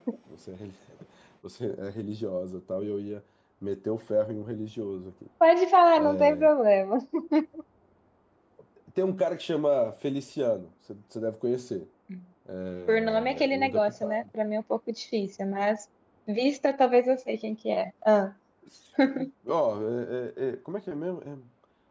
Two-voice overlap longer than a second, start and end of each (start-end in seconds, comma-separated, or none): 12.9-14.2